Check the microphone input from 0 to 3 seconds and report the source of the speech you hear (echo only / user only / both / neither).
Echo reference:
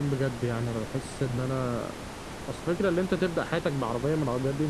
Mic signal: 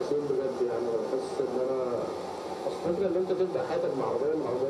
echo only